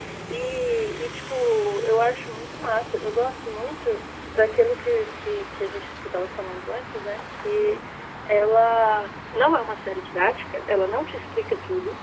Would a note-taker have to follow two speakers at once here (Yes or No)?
No